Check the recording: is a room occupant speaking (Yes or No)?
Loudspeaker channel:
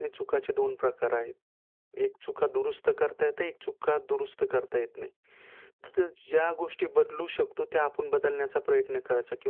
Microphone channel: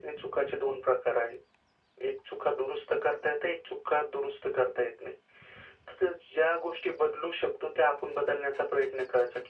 No